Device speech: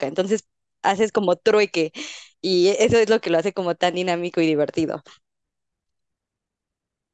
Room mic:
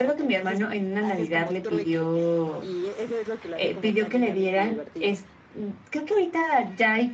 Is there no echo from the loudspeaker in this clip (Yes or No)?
No